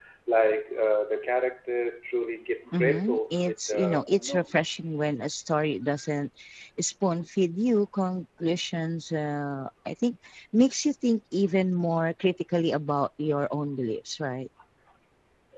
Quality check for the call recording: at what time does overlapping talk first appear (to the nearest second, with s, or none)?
3 s